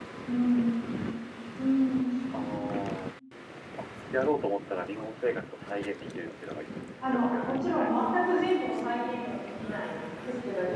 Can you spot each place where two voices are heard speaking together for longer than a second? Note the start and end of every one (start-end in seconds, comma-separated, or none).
7.0-8.5